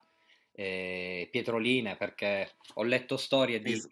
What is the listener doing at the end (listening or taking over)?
listening